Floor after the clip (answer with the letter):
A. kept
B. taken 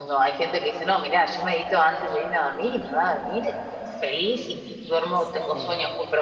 A